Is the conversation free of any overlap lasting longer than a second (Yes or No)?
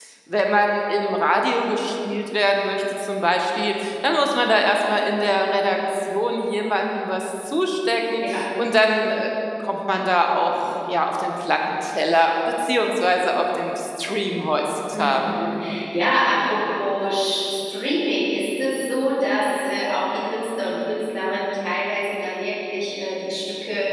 Yes